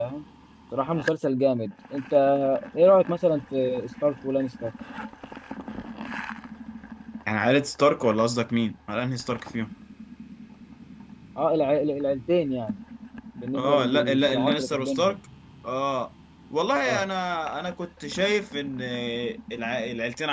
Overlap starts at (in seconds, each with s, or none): 13.5 s